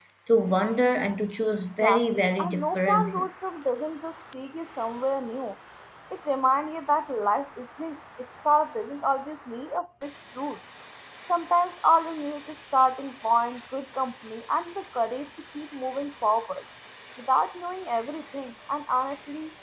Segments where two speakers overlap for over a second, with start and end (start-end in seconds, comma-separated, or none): 1.8-3.3